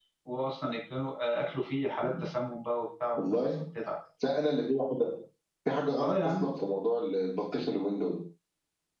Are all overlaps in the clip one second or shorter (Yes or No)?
Yes